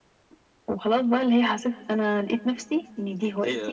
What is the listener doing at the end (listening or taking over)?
taking over